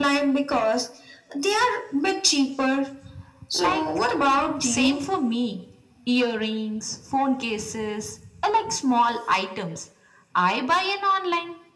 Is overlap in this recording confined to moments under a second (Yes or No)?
No